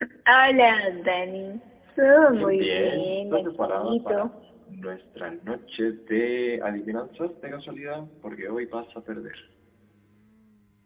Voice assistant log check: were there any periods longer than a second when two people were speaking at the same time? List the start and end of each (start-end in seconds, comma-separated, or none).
2.2-4.3